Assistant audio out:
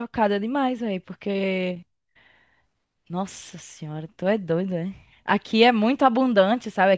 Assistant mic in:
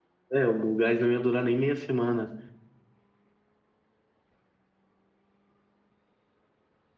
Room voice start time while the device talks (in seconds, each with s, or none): 0.4 s